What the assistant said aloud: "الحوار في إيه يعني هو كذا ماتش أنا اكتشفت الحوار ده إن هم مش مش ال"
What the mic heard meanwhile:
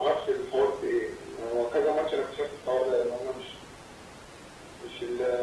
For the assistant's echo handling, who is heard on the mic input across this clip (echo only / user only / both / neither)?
echo only